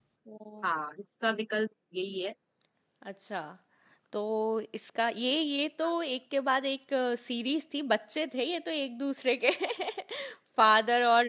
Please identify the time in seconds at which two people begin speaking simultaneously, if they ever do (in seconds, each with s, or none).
none